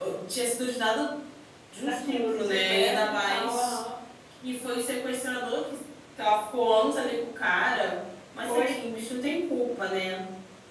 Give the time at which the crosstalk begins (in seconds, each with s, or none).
1.8 s